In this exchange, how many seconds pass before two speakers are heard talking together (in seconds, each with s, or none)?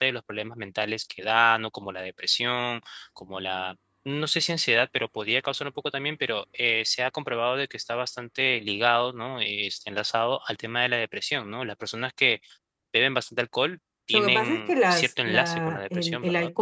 14.1 s